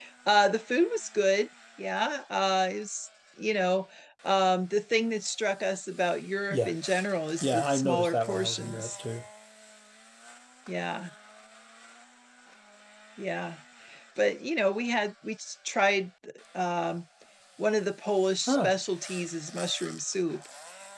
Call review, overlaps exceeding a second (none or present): present